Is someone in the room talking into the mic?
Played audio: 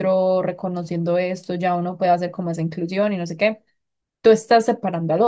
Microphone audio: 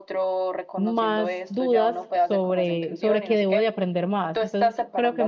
Yes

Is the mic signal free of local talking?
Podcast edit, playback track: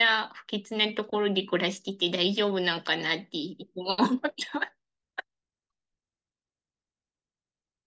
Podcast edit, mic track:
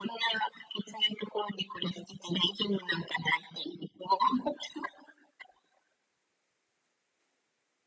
Yes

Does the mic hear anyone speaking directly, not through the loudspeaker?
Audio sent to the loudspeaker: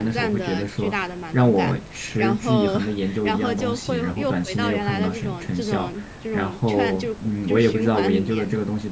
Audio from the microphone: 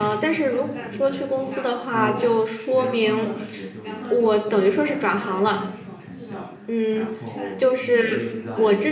Yes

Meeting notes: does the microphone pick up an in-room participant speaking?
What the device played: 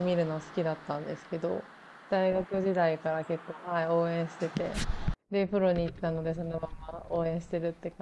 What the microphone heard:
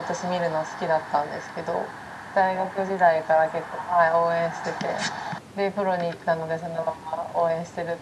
No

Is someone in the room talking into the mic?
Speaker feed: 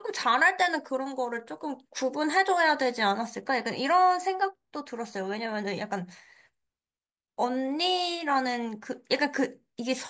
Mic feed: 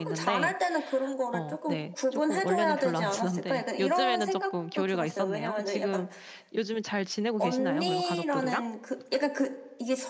Yes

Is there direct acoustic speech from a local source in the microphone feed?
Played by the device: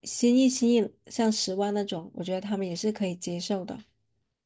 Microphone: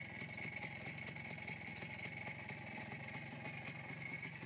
No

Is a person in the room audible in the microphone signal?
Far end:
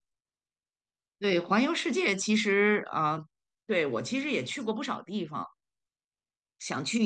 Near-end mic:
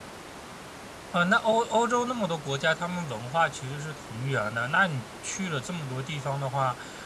Yes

